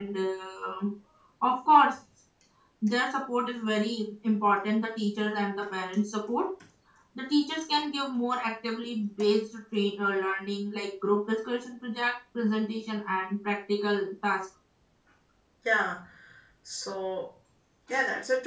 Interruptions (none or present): none